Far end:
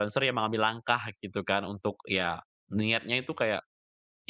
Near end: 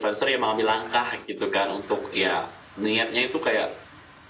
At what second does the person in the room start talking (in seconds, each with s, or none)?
none